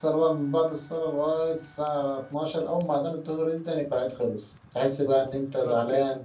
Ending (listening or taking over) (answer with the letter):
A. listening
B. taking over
A